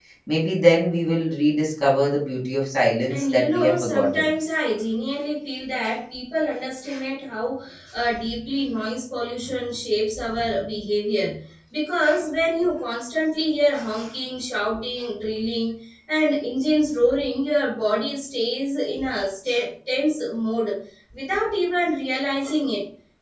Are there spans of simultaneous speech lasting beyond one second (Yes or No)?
Yes